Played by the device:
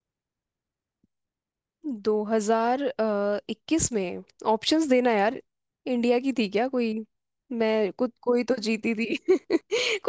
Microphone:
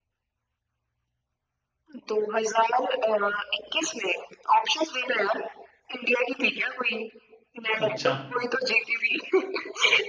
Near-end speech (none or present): present